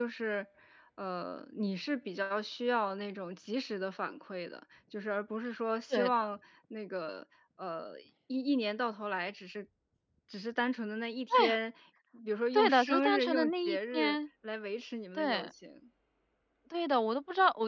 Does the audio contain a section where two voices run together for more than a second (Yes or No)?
Yes